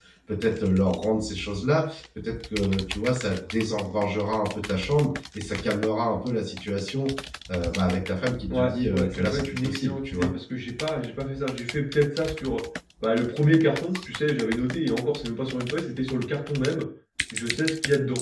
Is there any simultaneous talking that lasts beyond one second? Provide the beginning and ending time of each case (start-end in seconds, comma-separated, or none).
8.5-10.3